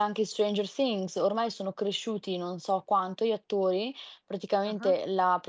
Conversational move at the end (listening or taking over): listening